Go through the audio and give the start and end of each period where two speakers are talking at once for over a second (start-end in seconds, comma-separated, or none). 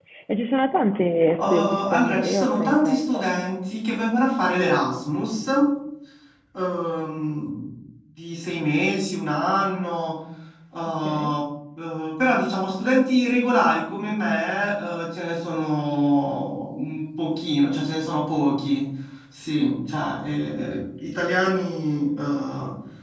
1.5-3.3